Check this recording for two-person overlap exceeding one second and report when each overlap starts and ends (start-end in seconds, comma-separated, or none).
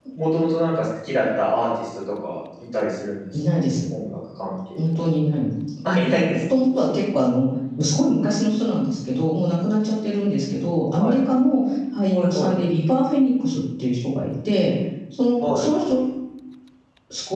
none